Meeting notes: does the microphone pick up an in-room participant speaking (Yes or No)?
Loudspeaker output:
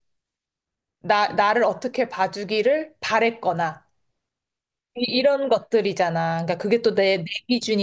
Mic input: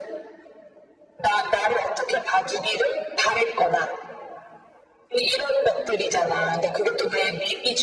No